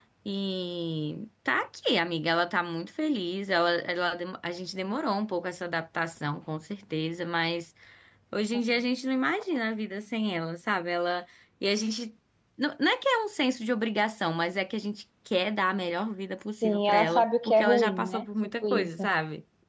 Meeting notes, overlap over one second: present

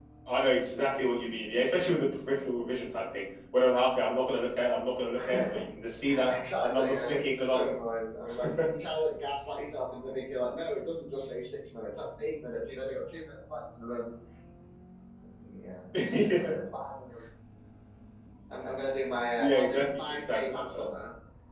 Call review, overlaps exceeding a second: present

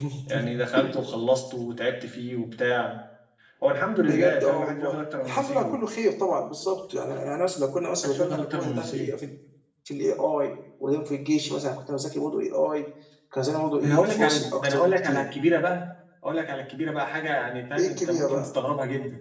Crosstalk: present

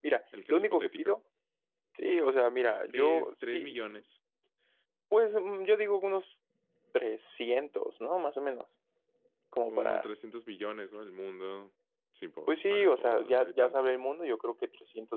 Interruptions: present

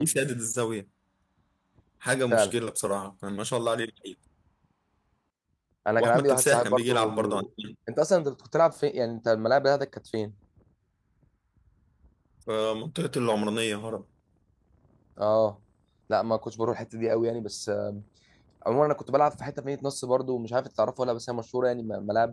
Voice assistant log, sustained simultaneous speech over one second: present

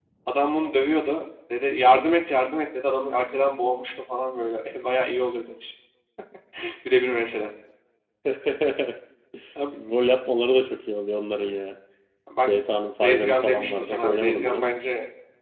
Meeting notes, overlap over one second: present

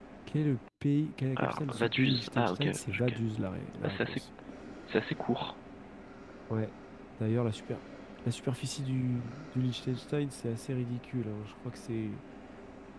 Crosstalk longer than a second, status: present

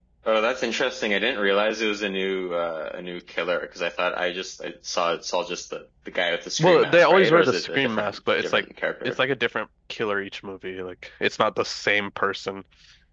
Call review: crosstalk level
present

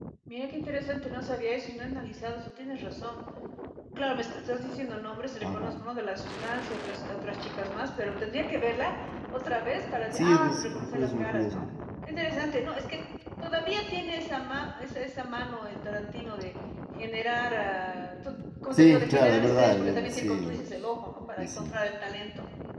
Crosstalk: present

